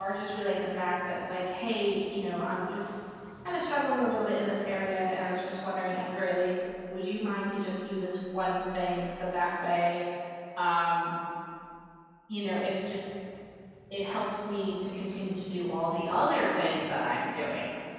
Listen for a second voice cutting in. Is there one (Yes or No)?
No